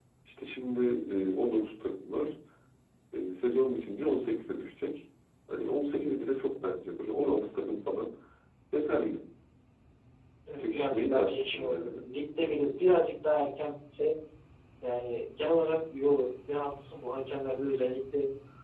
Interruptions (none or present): present